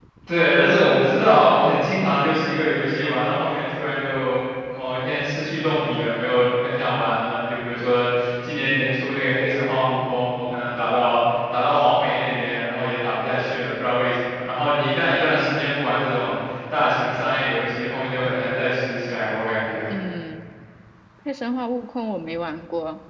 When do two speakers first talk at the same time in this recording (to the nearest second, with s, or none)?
none